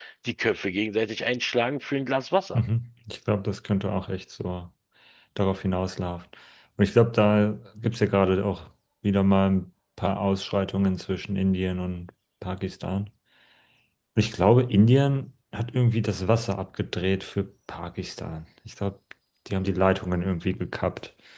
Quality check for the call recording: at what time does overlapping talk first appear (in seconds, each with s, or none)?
none